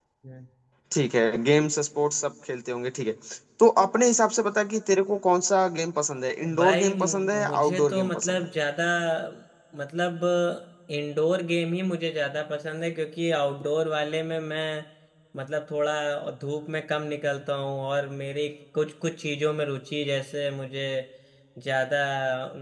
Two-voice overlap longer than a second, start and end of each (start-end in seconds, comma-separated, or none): 6.6-8.5